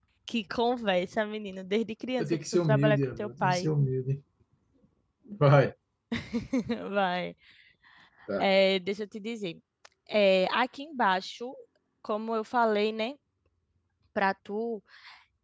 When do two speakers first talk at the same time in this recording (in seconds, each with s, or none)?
2.2 s